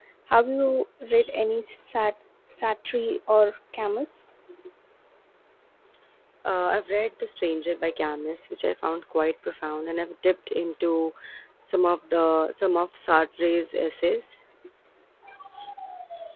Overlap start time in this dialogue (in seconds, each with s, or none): none